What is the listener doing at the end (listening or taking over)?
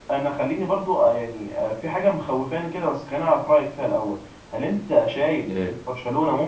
listening